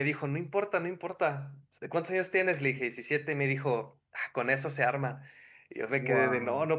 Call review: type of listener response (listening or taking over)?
listening